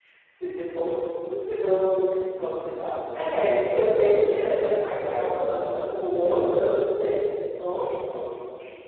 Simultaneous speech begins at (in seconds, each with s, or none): 3.1 s